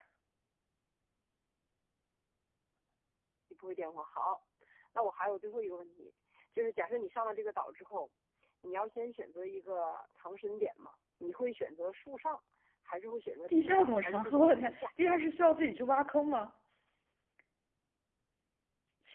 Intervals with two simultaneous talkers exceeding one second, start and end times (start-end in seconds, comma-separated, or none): 13.5-14.9